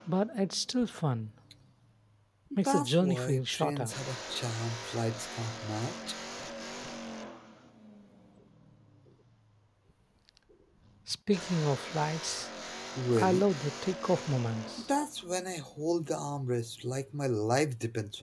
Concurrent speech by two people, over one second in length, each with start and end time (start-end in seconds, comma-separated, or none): 2.6-3.9